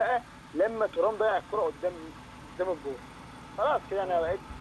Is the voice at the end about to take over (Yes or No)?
Yes